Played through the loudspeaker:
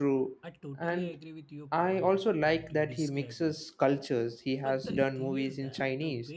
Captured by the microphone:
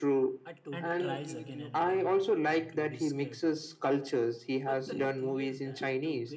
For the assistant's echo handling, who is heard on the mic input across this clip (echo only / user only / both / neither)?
both